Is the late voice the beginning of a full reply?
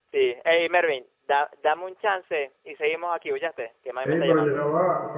Yes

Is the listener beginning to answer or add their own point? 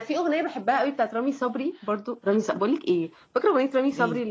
No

